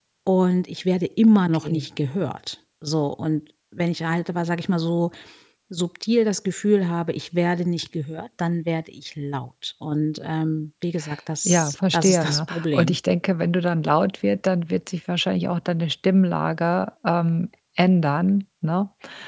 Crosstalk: present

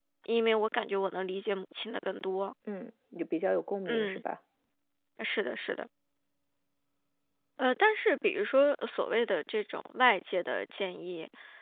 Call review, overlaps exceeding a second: none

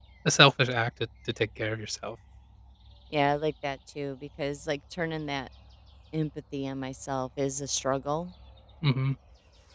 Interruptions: none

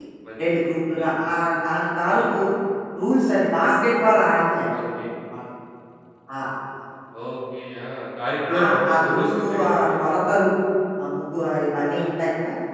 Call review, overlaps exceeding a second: present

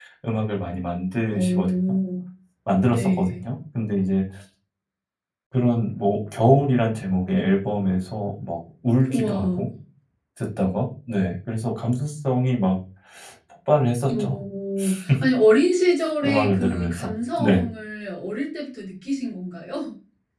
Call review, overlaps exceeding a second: present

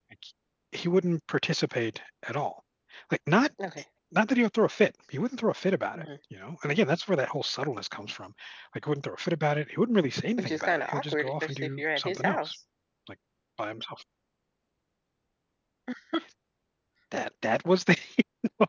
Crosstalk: present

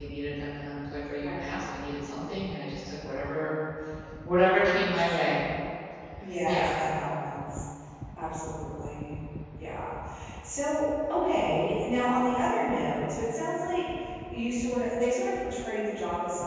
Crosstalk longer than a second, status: none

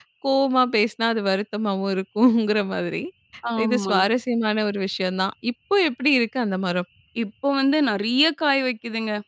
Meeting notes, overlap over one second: none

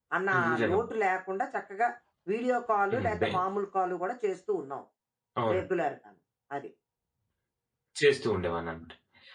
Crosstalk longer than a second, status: none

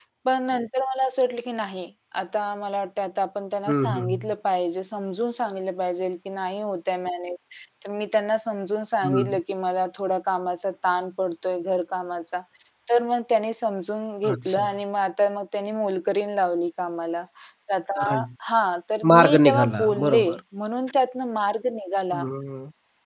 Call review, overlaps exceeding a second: present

